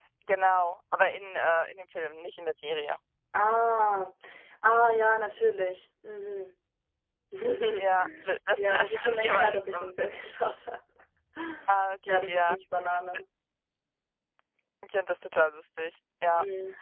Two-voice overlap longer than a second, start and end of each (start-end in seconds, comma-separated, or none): 8.6-9.9